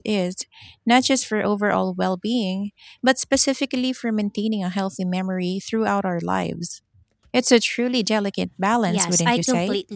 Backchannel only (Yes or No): No